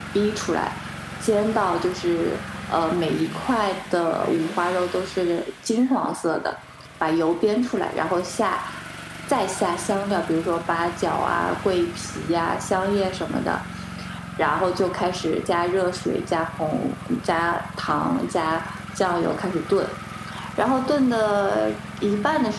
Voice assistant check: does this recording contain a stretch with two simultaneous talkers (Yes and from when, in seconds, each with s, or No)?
No